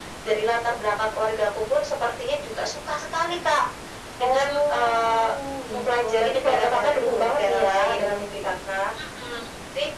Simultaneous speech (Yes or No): Yes